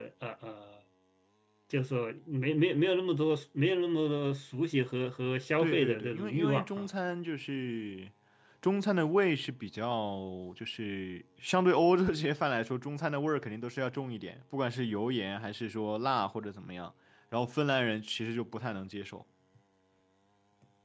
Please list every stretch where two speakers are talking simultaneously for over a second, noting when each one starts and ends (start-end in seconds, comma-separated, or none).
5.6-6.9